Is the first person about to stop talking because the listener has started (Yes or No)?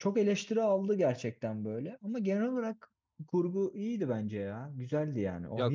Yes